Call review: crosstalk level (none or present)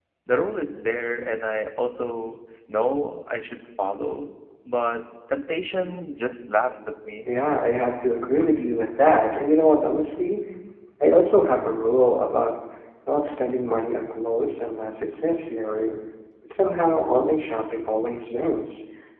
none